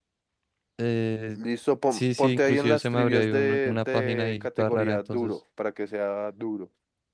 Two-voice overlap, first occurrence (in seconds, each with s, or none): 1.9 s